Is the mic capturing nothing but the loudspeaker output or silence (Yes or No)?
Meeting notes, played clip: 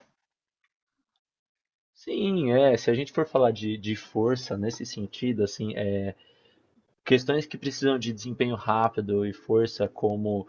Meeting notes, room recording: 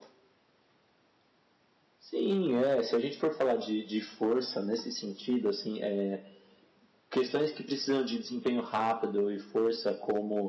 Yes